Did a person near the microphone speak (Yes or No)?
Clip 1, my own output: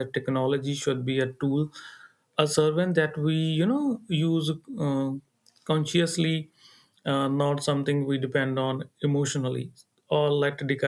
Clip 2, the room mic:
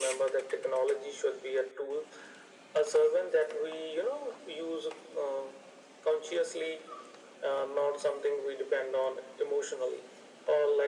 No